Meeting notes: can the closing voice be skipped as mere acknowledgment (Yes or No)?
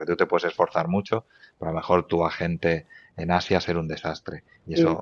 Yes